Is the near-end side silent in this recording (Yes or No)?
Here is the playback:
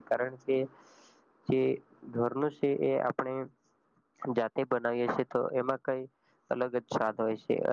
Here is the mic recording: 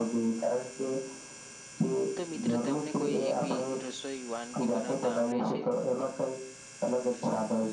No